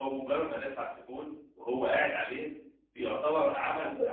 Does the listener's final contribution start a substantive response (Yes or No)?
No